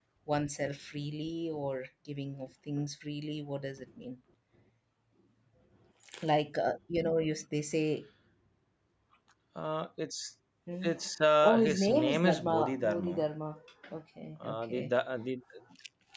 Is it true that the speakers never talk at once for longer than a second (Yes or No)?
No